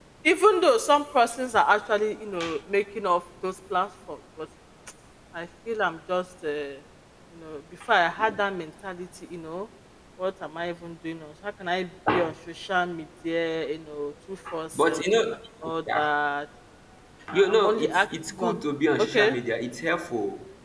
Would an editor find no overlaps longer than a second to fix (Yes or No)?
No